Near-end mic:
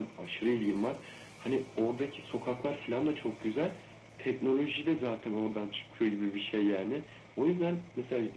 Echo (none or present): present